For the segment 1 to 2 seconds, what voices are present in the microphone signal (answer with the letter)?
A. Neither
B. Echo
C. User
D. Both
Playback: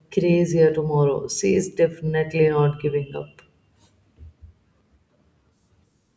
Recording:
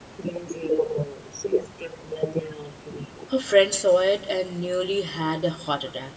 B